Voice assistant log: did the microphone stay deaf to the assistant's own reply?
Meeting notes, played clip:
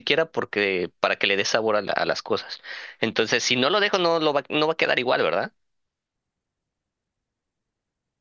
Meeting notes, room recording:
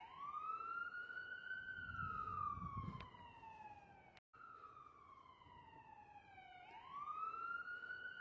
Yes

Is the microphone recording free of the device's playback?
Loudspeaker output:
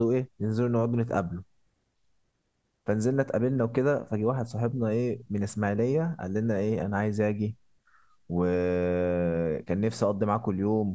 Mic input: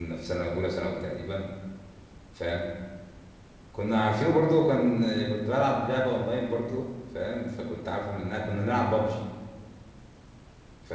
Yes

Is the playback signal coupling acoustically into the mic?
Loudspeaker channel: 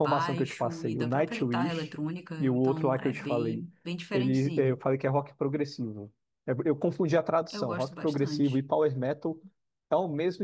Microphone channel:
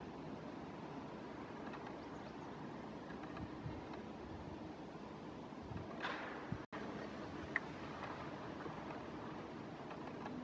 No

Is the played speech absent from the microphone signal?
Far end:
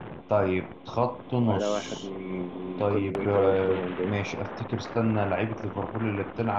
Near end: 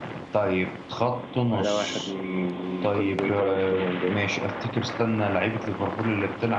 No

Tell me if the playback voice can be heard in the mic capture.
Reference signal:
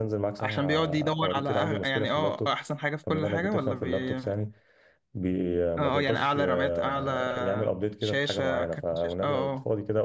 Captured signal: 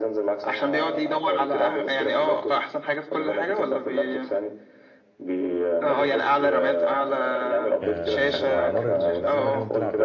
Yes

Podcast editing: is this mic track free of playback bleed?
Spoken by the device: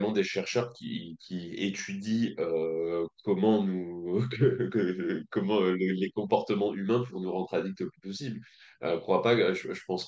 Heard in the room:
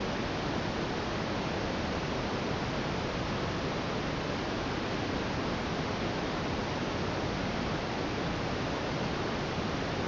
Yes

